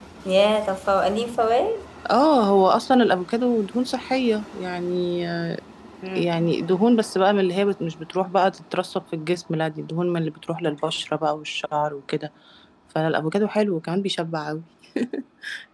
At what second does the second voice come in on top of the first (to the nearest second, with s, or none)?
none